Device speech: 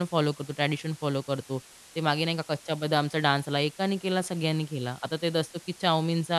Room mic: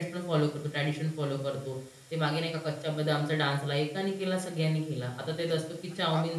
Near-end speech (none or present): present